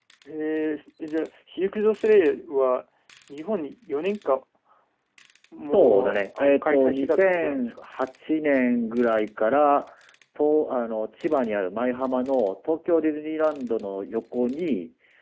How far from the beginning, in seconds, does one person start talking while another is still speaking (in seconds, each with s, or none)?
5.7 s